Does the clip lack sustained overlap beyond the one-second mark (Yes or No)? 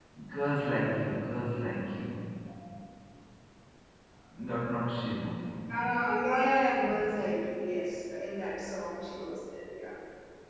Yes